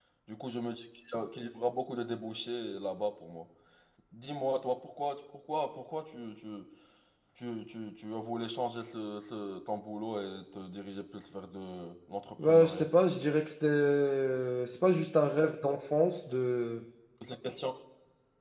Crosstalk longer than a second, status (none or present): none